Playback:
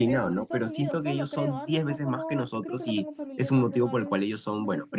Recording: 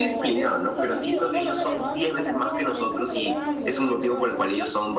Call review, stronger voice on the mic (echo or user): echo